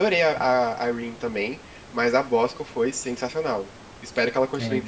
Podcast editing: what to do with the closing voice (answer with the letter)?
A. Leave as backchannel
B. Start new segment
A